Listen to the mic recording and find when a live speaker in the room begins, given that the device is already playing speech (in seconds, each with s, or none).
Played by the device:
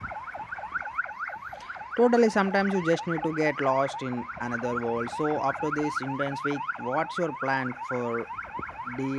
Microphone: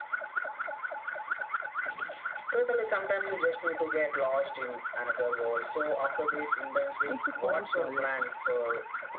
7.1 s